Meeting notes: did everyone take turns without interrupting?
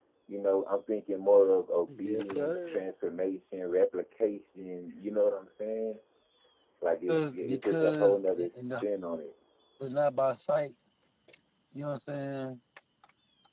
No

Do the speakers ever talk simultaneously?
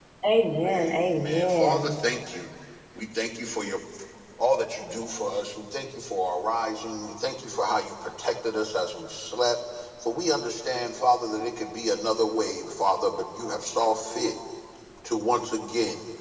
Yes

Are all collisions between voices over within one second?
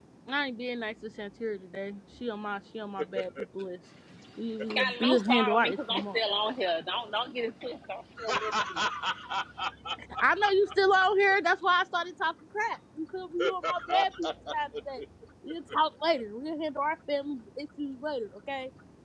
No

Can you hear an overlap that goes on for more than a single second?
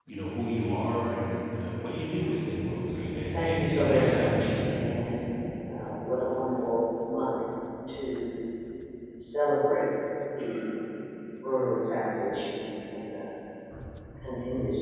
Yes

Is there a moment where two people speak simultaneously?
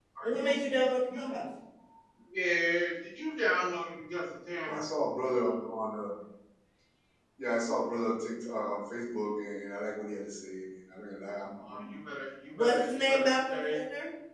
Yes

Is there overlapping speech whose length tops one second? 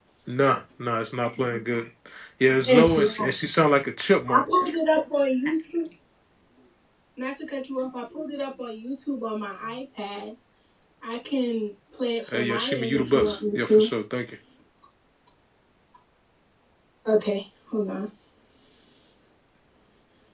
Yes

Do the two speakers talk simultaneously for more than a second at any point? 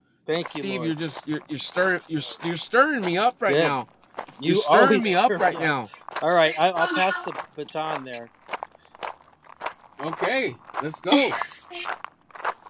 Yes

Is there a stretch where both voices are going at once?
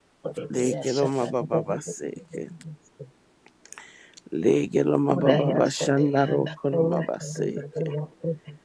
Yes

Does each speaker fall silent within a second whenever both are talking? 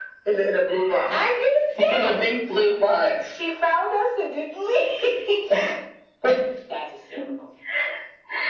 Yes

